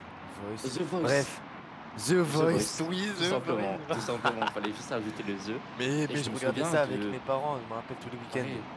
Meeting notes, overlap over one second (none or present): present